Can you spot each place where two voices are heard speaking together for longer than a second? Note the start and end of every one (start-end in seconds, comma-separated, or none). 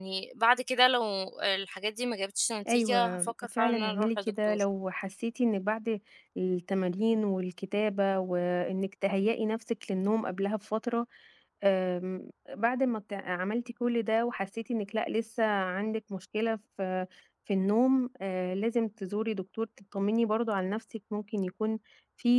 2.7-4.6